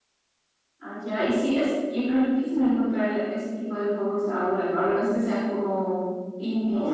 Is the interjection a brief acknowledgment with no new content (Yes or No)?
No